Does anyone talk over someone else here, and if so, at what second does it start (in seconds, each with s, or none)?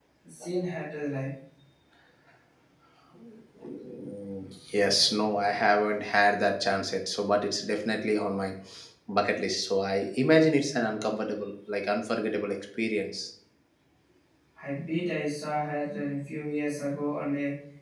none